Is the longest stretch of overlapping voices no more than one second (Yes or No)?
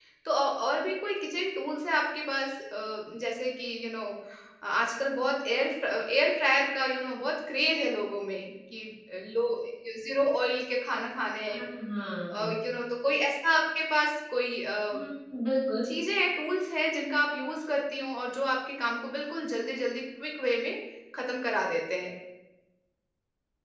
Yes